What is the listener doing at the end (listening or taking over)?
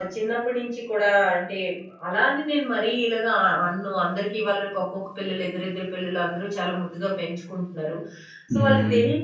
listening